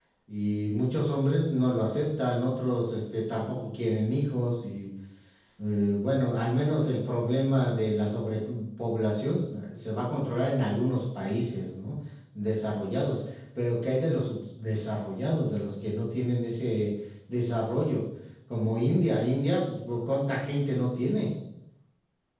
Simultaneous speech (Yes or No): No